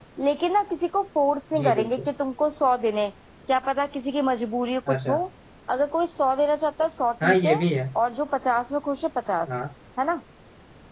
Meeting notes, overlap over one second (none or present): none